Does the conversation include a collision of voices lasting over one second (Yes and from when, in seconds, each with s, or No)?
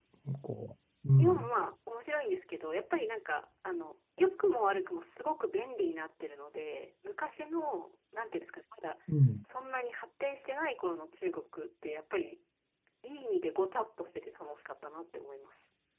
No